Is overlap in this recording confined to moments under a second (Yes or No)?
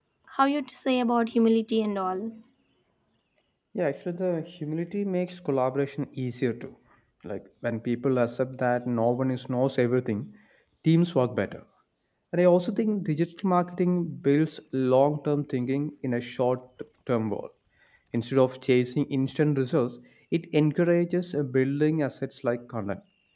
Yes